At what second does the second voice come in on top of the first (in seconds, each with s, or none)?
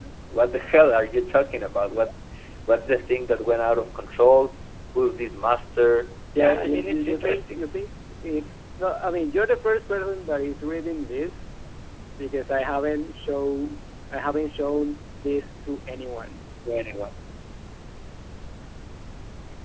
6.3 s